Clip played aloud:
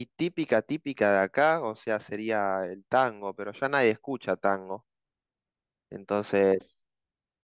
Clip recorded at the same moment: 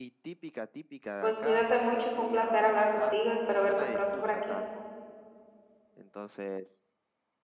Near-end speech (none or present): present